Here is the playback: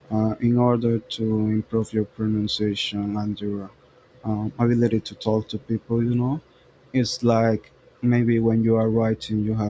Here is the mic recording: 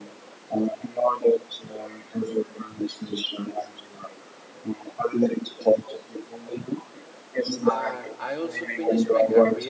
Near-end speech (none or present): present